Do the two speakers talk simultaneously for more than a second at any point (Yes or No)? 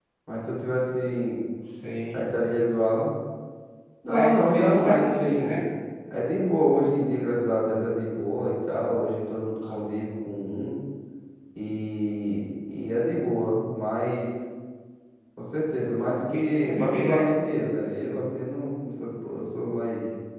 Yes